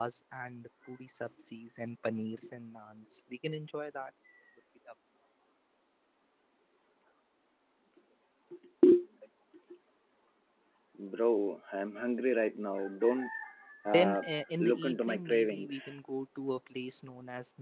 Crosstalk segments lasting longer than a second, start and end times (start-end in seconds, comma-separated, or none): 14.6-16.0